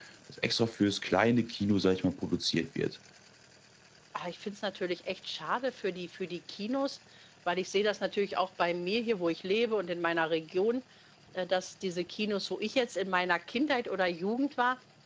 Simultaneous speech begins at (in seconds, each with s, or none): none